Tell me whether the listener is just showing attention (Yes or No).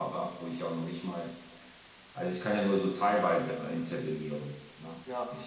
Yes